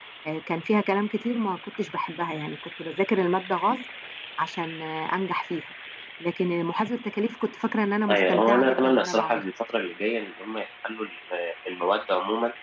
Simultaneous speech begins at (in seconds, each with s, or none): 8.1 s